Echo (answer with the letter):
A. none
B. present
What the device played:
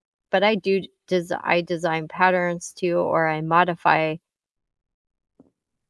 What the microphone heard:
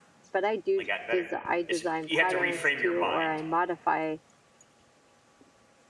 B